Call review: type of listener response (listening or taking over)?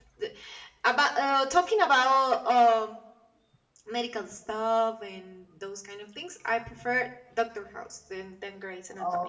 taking over